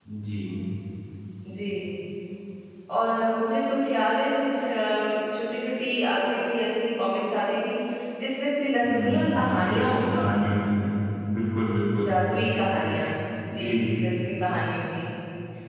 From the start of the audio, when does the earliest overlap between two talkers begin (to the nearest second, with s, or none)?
9 s